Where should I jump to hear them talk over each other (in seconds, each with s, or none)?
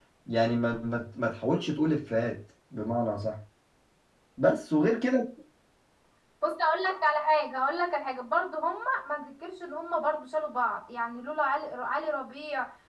none